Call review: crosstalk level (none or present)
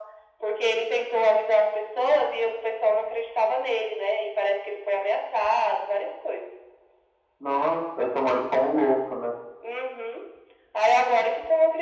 none